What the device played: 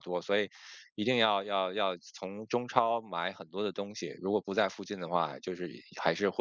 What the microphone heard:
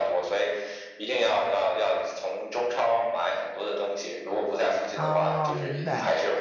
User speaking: Yes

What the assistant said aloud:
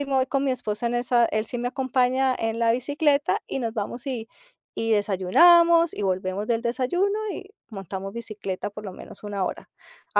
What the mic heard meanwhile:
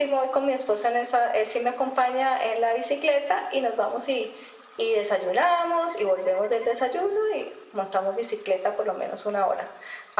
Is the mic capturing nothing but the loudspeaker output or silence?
Yes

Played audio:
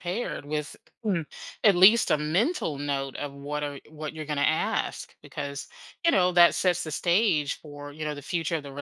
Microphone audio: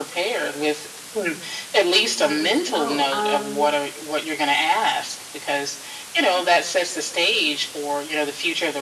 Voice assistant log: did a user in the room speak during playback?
Yes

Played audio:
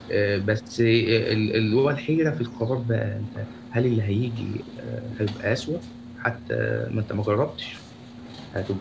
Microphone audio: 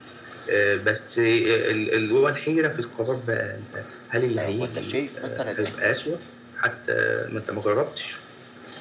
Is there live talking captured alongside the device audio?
Yes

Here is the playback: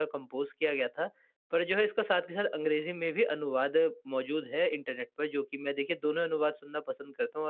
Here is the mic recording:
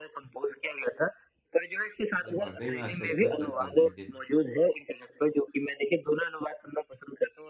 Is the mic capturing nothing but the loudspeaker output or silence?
No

